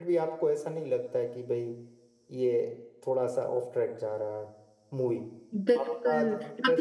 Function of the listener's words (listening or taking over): taking over